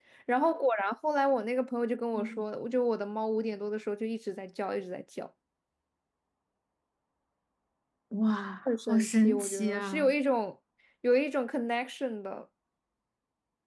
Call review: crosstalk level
present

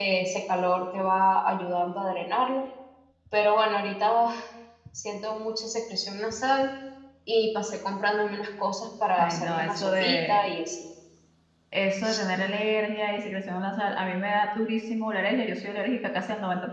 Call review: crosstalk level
present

